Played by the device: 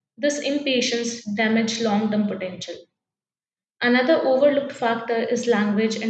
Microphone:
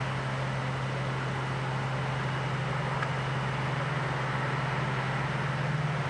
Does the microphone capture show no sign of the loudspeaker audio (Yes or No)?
Yes